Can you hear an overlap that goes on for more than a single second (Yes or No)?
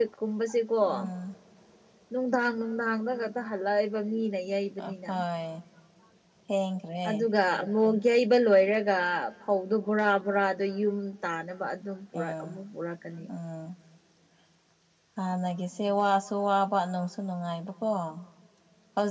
No